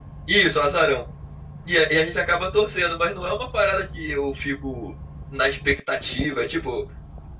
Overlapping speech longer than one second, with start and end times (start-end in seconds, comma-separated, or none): none